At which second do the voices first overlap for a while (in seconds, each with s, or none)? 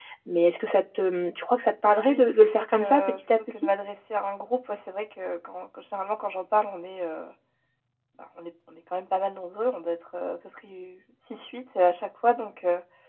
1.9 s